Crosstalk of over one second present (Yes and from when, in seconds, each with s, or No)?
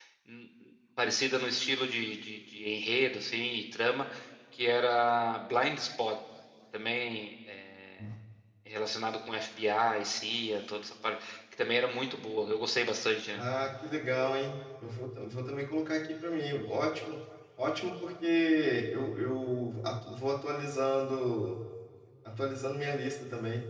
No